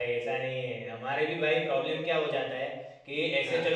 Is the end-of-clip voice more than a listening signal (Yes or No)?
No